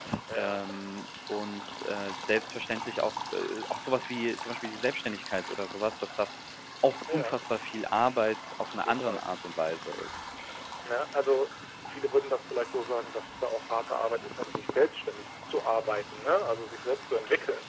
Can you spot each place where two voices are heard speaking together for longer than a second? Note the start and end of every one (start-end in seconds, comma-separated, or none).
none